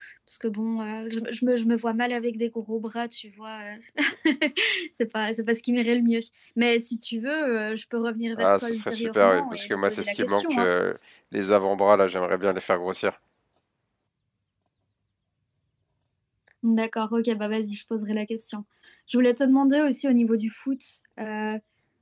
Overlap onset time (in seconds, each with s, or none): 8.4 s